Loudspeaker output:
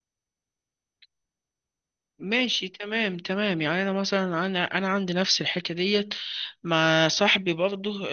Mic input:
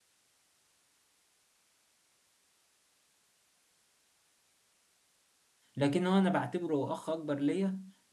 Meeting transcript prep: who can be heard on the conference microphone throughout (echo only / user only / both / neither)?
user only